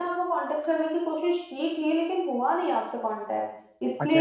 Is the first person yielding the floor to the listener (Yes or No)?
Yes